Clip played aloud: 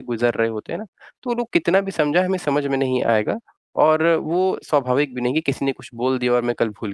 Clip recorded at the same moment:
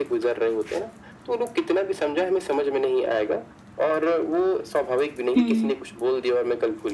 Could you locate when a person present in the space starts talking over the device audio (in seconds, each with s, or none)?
5.4 s